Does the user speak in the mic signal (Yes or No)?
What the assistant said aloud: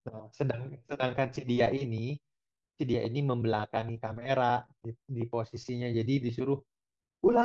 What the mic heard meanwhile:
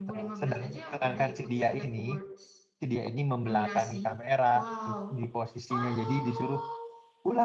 Yes